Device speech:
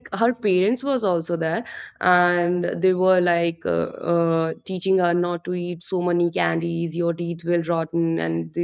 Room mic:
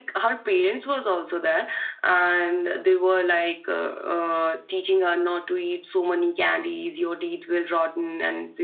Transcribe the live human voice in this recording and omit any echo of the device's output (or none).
none